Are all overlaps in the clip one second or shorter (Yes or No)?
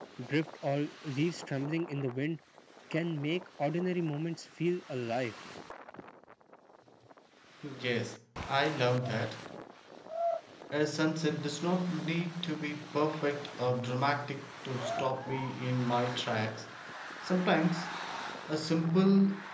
Yes